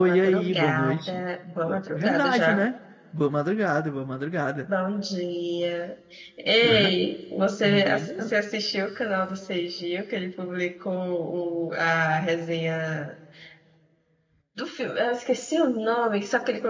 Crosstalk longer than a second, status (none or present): present